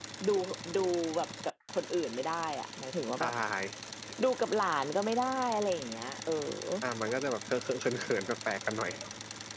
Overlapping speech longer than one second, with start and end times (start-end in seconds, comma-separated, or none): none